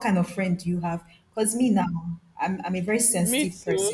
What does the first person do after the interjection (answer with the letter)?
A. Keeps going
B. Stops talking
A